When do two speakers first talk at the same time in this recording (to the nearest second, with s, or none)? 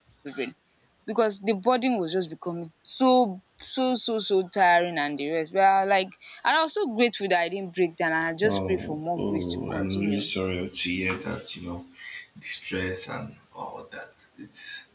8 s